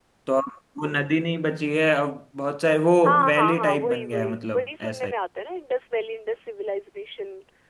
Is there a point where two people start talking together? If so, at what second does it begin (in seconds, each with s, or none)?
3.3 s